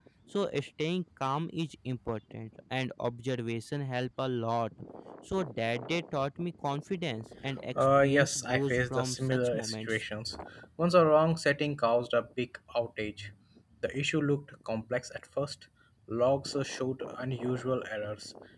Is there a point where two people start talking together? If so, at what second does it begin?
7.8 s

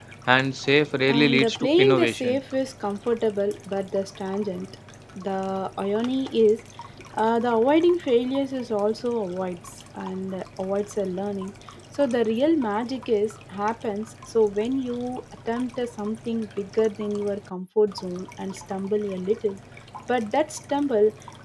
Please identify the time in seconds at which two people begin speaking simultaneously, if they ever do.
1.1 s

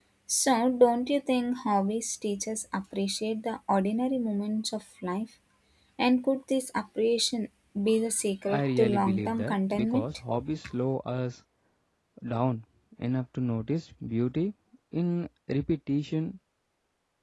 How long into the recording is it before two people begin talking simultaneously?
8.5 s

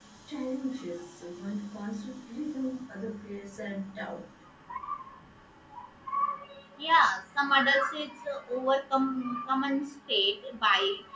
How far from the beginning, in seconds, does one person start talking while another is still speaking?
none

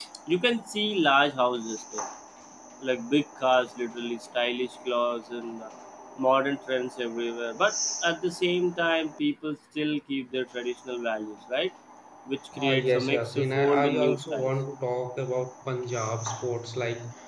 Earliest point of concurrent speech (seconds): 12.6 s

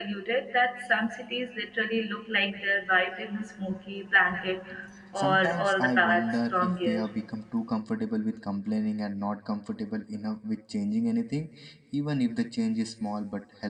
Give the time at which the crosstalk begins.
5.2 s

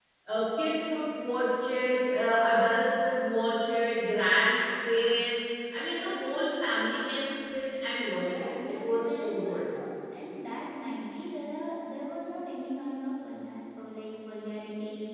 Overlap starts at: 8.3 s

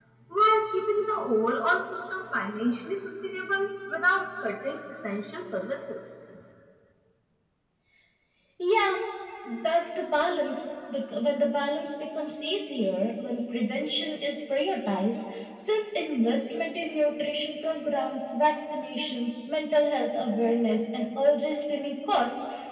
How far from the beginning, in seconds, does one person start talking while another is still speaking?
none

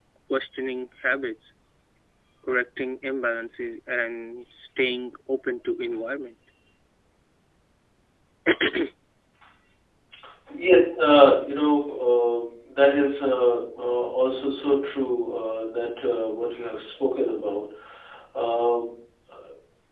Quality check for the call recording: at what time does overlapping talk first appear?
none

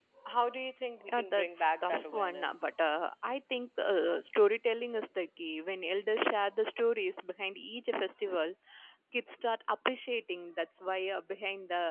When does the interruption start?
1.1 s

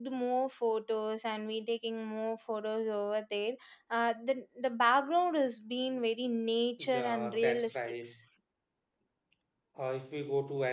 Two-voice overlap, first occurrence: 6.8 s

